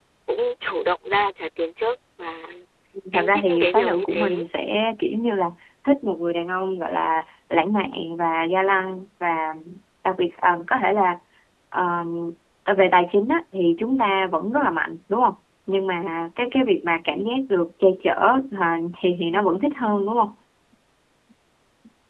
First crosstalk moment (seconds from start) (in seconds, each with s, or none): 3.1 s